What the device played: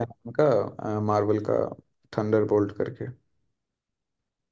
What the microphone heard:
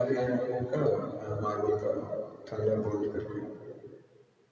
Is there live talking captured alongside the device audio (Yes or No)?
No